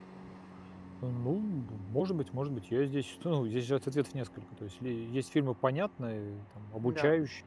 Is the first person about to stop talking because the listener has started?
No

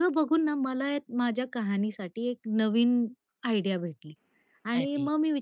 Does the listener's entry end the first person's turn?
No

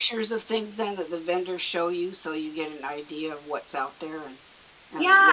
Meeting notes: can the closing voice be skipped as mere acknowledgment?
No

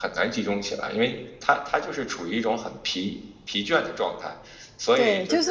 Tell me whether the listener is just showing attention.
No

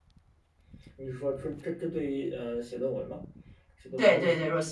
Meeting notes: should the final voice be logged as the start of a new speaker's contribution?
Yes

